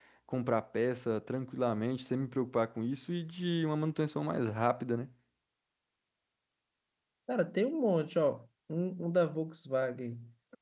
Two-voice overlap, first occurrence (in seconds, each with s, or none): none